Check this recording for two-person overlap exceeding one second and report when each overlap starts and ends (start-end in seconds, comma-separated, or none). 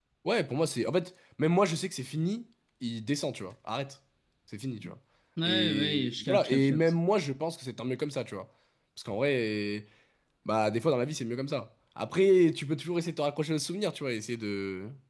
5.4-6.9